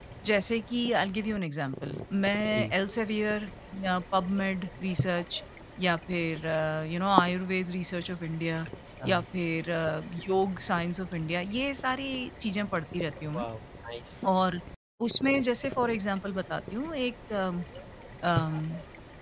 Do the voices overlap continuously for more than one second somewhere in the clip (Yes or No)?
No